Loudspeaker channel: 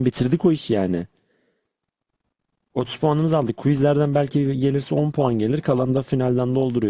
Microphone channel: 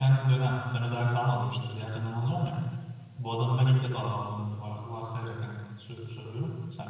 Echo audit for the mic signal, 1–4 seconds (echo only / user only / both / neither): user only